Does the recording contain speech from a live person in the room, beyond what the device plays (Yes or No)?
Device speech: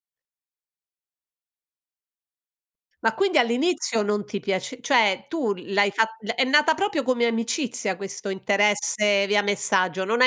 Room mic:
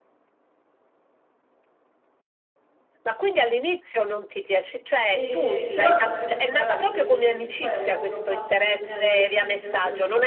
Yes